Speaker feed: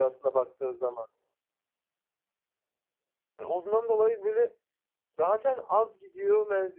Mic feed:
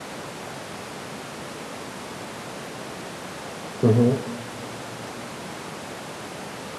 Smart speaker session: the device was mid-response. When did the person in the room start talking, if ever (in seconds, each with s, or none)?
3.8 s